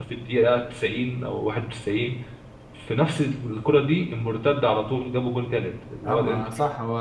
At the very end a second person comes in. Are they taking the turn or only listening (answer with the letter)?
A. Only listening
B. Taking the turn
B